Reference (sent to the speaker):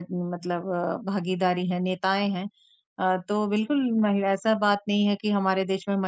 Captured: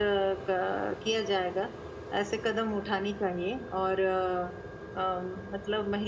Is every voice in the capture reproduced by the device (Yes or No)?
No